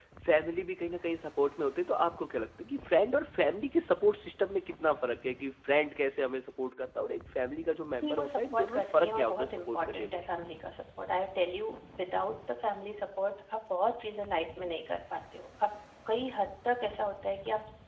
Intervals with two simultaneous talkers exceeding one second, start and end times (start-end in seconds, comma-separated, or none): 8.0-10.2